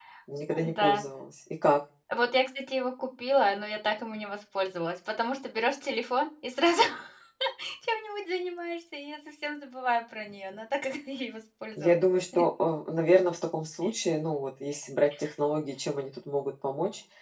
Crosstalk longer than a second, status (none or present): none